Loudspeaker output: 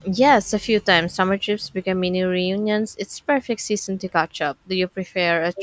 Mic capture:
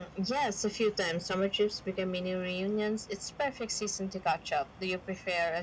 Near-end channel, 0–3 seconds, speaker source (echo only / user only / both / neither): echo only